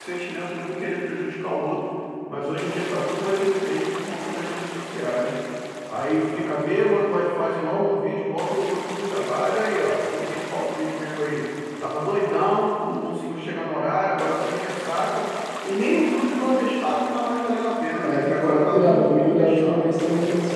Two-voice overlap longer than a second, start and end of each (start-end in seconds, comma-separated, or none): 18.0-20.0